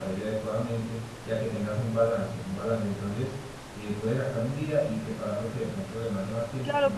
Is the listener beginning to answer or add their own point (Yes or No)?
Yes